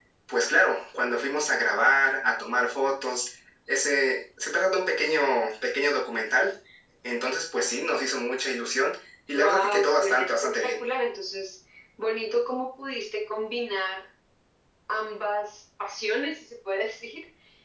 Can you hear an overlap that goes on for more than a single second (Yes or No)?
Yes